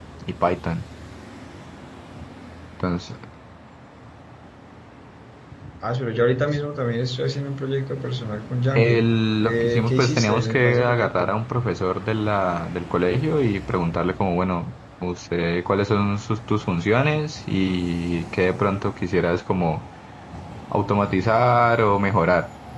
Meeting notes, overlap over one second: present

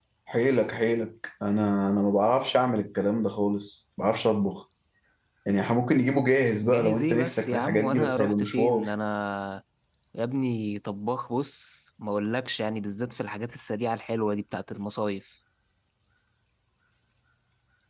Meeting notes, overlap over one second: present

